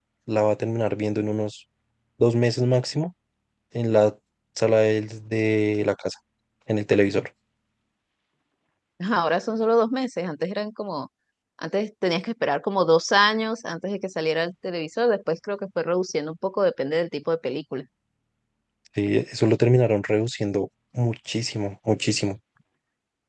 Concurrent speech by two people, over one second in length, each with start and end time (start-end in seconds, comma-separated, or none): none